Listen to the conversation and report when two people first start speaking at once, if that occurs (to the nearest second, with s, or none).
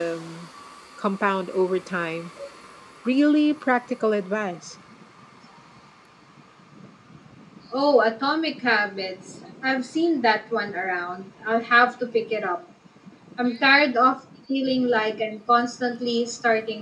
none